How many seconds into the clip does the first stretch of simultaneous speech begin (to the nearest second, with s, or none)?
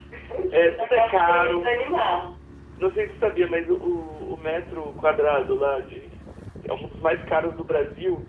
1 s